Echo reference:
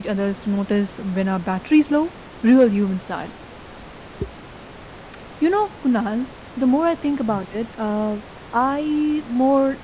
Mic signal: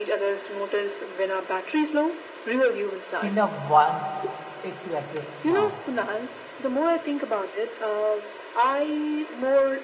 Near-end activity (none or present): present